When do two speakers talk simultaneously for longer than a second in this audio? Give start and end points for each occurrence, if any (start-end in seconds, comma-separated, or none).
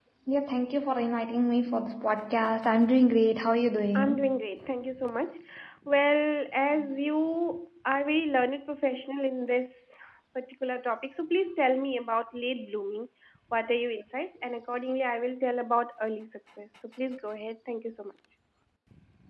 none